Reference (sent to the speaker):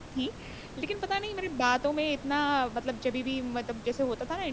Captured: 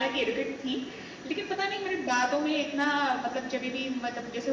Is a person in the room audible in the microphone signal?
No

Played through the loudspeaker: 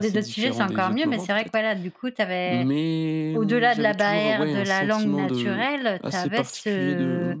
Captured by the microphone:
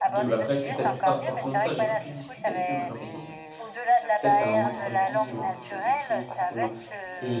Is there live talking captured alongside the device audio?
Yes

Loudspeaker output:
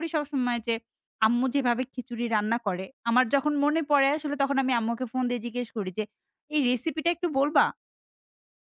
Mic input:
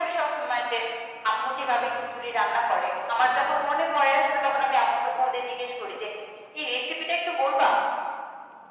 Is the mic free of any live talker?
Yes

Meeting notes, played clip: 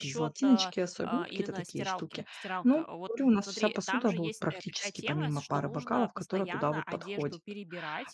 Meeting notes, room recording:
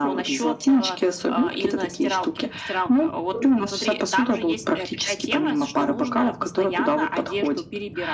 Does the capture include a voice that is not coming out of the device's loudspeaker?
No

